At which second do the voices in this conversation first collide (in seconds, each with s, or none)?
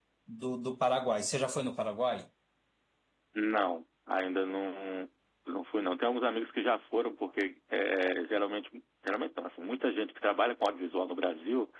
none